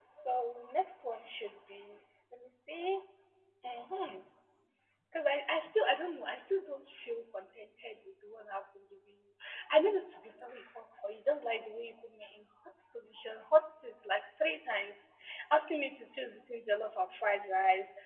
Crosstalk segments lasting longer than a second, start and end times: none

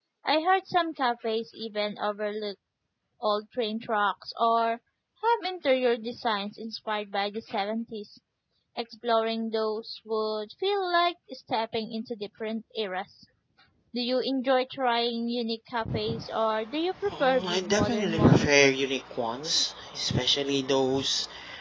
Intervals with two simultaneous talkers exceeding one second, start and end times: 17.2-18.7

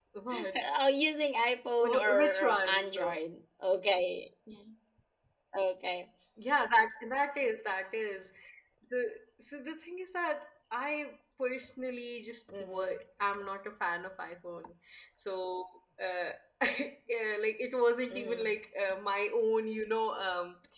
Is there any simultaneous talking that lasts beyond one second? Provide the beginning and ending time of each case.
1.8-3.2

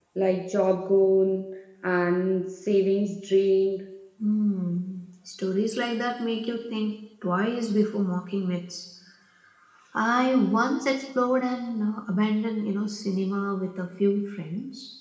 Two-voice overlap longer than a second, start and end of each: none

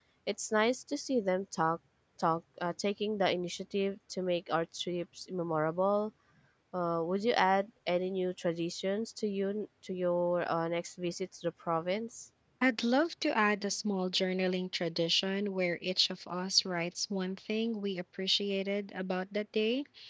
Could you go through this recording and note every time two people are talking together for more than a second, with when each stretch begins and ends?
none

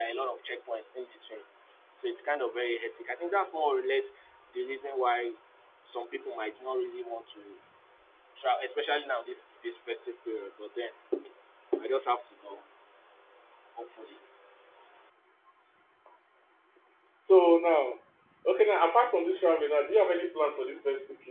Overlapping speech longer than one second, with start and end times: none

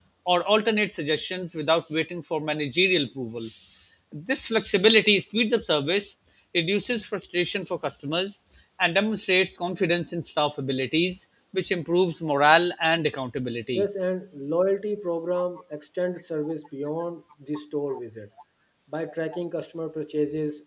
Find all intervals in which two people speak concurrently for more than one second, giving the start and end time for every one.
none

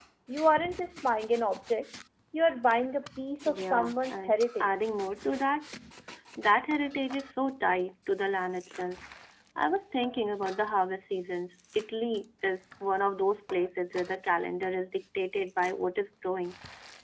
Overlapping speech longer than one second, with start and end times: 3.5-4.7

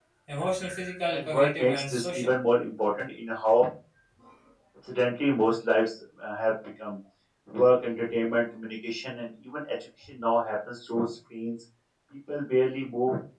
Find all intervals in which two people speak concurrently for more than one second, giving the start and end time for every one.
1.1-2.3

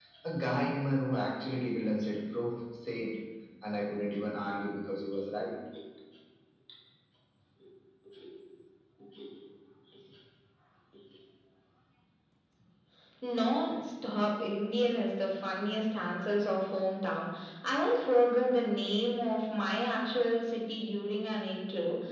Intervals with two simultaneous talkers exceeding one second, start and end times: none

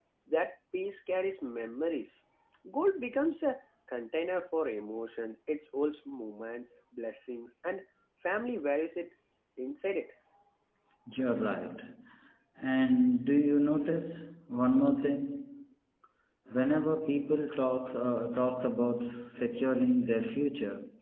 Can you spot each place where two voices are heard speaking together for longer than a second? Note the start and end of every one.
none

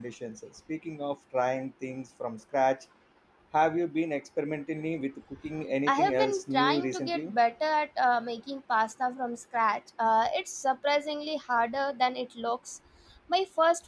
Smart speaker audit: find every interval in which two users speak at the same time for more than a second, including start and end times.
5.9-7.3

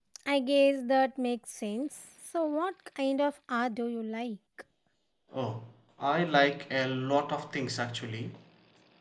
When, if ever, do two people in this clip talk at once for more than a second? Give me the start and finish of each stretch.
none

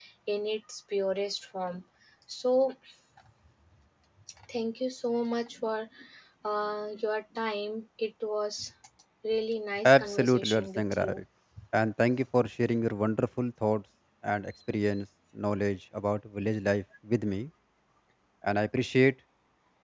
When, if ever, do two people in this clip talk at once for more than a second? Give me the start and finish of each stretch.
9.8-11.2

